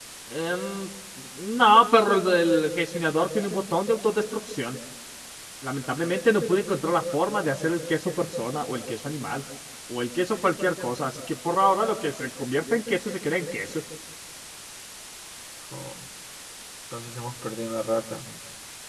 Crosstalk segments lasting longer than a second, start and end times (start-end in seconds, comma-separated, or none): none